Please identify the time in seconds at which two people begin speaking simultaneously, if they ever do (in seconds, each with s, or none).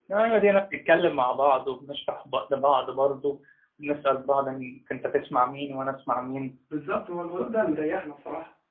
none